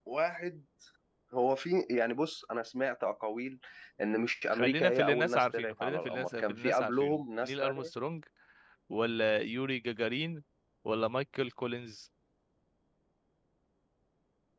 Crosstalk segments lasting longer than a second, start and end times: 4.5-7.9

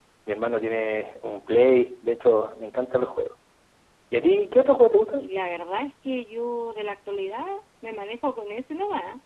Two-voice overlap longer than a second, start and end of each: none

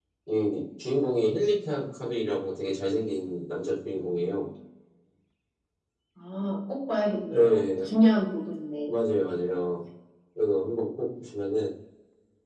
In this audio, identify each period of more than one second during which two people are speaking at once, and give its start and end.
none

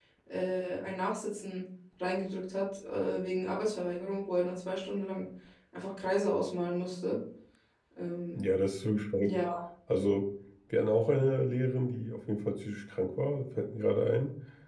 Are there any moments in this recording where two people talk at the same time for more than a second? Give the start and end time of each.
none

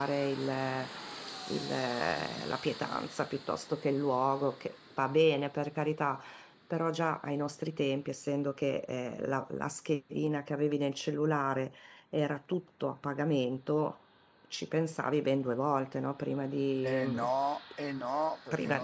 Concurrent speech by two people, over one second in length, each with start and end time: none

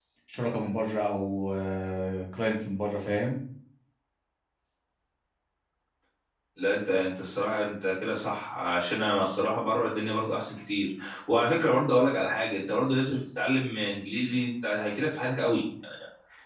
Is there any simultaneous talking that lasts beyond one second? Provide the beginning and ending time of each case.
none

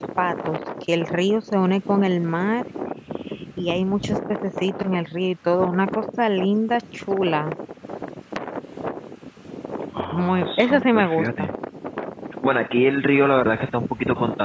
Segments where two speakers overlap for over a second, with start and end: 10.1-11.5

